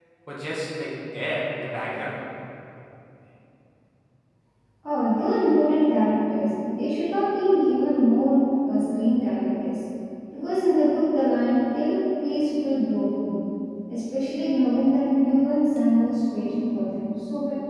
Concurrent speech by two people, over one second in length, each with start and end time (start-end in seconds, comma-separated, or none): none